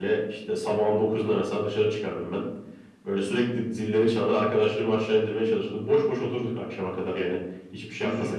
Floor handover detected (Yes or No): Yes